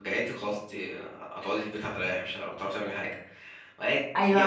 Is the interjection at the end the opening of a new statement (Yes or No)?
Yes